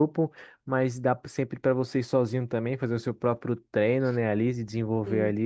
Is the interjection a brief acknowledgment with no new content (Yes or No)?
Yes